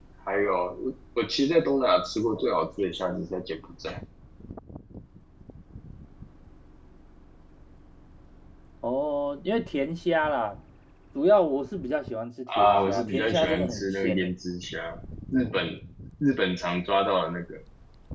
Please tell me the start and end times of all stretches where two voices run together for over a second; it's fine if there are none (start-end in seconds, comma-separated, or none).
12.6-14.3